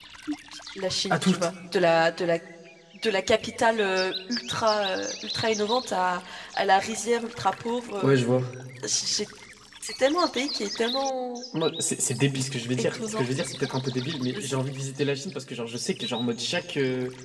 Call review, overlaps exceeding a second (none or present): none